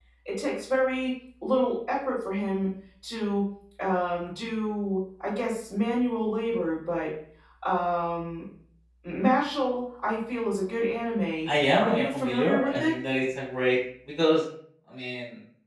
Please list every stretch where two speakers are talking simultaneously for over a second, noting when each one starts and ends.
11.5-12.9

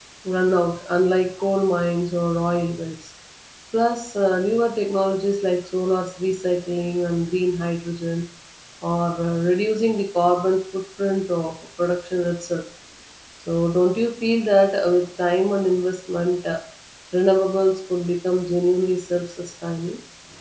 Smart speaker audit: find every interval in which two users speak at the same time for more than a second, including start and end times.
none

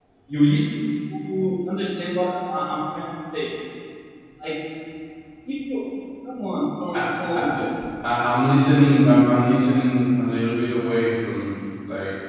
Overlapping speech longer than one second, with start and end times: none

